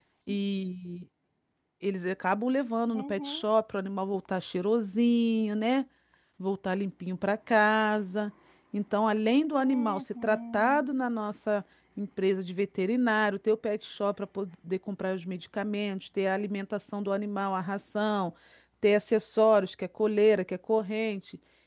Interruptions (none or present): present